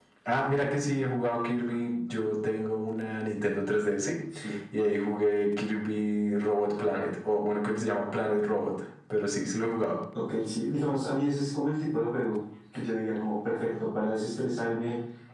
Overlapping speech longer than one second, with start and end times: none

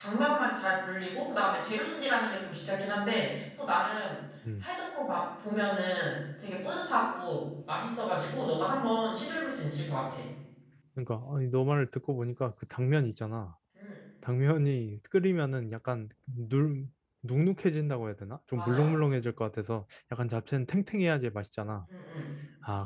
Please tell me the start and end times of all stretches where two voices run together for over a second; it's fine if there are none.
none

